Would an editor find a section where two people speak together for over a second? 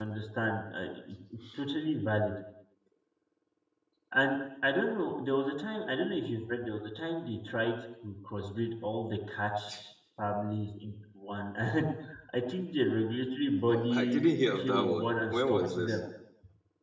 Yes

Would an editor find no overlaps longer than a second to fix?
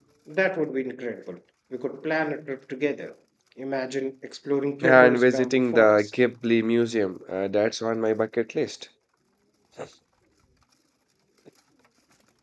No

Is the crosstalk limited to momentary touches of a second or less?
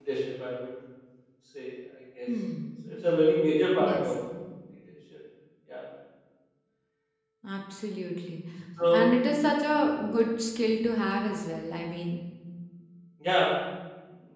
Yes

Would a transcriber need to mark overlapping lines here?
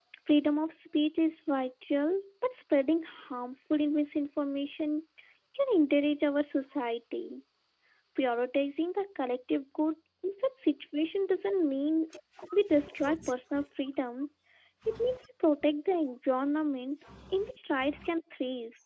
No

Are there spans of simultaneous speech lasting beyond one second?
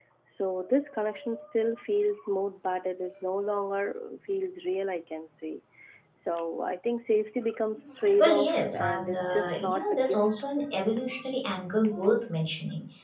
Yes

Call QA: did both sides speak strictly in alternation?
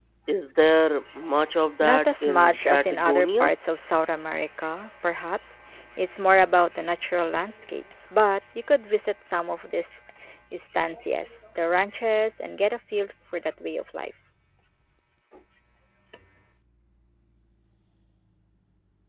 No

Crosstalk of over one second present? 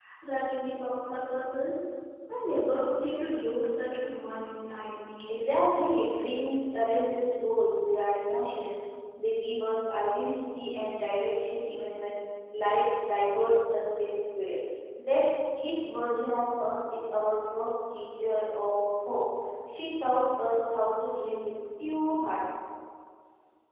No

